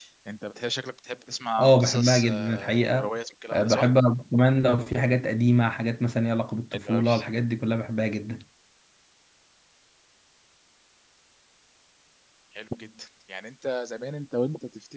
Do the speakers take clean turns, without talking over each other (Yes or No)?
No